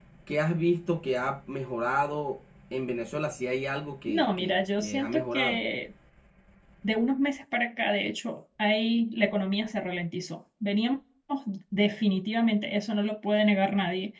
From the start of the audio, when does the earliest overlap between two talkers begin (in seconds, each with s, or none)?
4.1 s